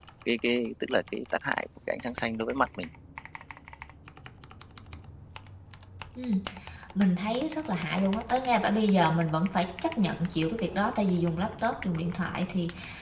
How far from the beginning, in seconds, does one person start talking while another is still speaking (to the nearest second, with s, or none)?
none